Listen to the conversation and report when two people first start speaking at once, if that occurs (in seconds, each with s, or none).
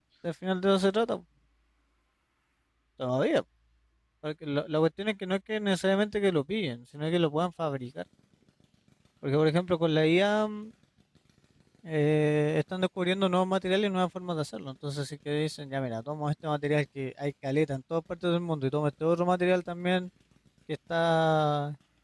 none